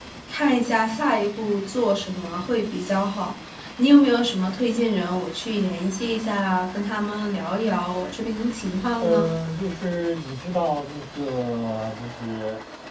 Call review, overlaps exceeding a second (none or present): none